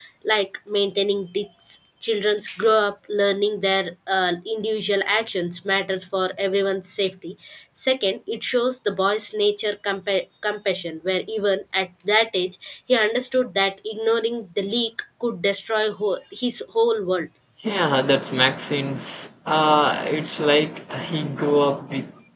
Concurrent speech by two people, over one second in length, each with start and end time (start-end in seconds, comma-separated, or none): none